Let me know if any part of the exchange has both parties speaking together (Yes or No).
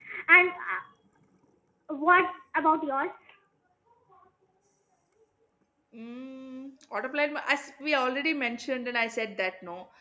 No